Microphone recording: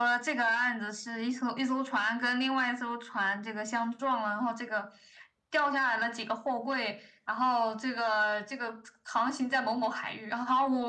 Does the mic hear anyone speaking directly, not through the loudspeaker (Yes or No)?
No